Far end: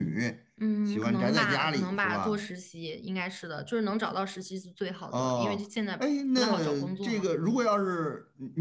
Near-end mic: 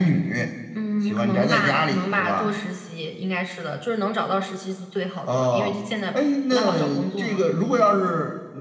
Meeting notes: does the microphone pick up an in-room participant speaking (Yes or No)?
No